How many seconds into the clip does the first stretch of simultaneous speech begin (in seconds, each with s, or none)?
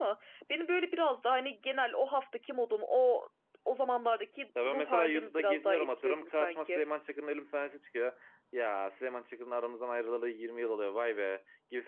4.6 s